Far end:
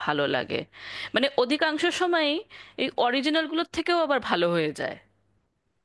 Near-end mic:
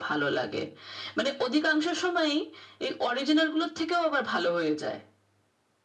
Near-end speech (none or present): none